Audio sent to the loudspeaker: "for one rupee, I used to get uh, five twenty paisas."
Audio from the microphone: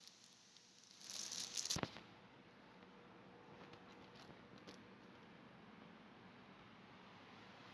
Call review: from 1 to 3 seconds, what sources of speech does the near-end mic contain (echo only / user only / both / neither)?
neither